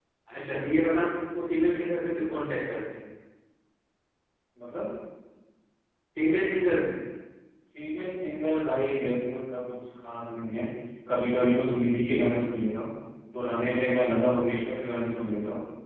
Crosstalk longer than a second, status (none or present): none